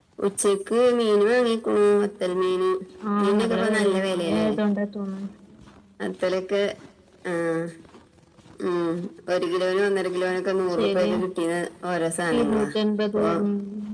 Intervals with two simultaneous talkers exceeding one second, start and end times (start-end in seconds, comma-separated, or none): 3.2-4.5